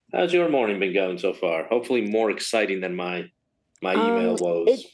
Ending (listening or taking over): taking over